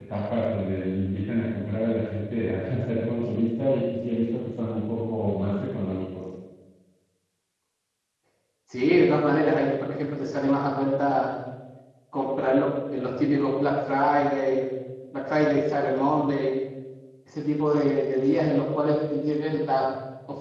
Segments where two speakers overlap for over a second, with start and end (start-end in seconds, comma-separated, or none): none